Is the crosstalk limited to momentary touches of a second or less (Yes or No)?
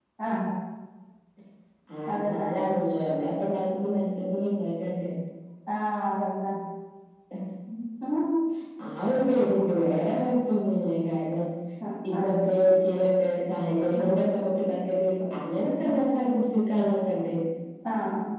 Yes